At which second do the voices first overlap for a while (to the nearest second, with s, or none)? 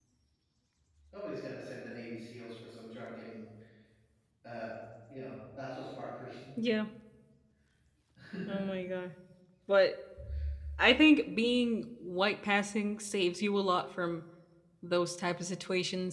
none